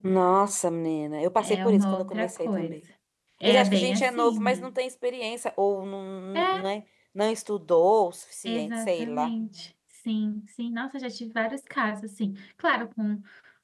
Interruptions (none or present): present